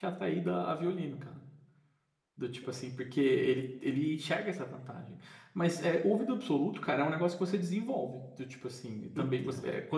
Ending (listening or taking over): listening